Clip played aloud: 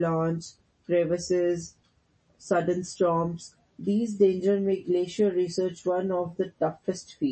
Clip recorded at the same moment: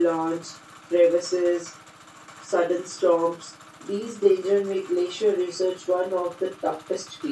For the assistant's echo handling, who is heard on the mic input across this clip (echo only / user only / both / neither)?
echo only